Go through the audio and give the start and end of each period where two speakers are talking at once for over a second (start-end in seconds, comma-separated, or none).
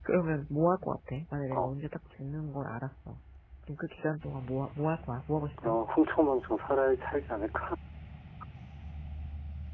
none